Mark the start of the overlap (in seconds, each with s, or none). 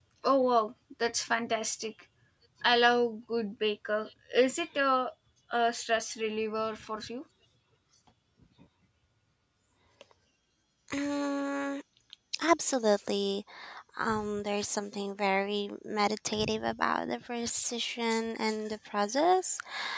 none